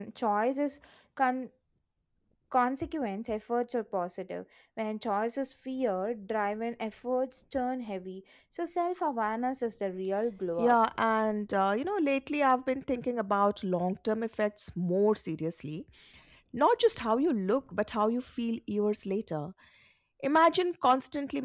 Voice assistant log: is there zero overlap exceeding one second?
Yes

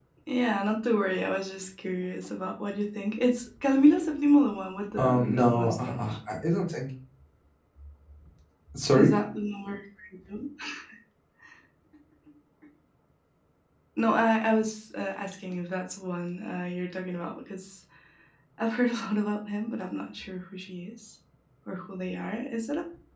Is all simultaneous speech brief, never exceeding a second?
No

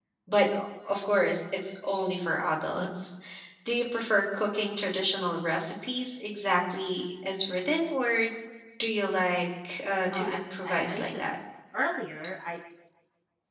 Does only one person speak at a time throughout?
No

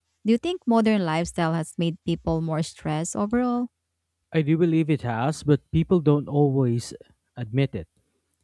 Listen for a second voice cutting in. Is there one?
No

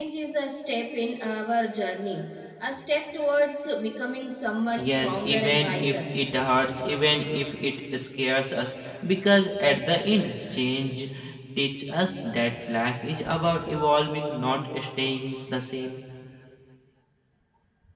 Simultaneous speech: Yes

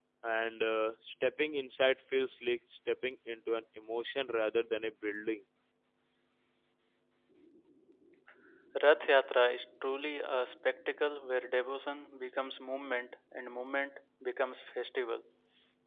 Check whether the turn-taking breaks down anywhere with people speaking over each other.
No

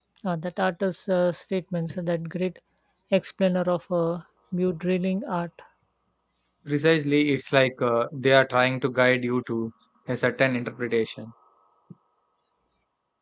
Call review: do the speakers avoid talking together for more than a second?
Yes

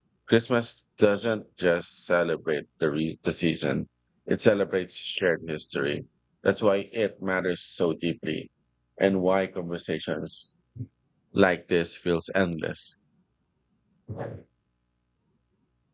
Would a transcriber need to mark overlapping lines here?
No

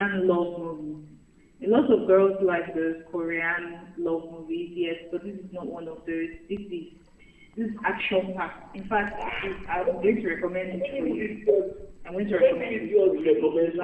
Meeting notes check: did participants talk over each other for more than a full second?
Yes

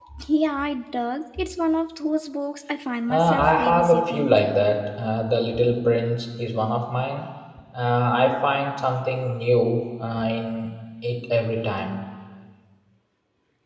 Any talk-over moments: Yes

